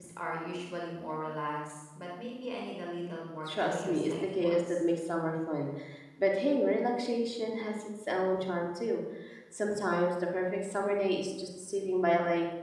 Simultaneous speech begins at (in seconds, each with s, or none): 3.5 s